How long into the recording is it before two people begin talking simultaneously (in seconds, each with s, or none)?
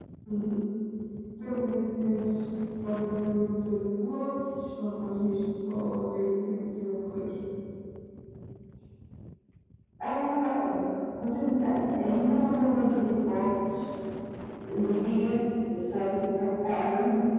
none